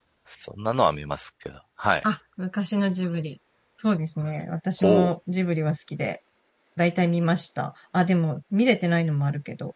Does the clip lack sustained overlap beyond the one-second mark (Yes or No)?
Yes